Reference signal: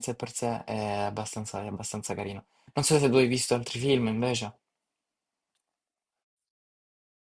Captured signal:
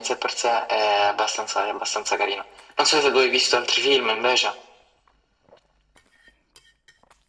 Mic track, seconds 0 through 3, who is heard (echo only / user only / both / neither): echo only